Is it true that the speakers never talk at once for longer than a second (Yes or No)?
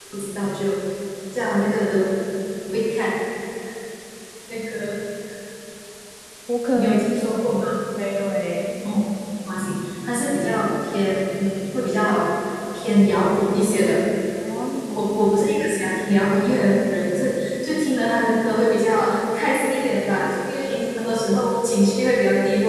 Yes